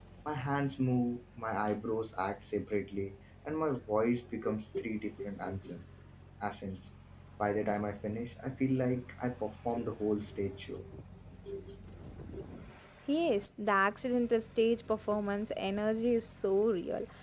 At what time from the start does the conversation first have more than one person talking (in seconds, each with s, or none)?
none